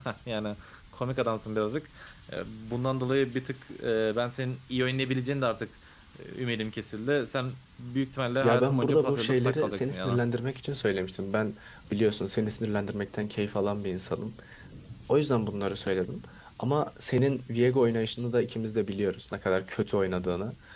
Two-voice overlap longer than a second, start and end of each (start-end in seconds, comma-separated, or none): 8.4-10.2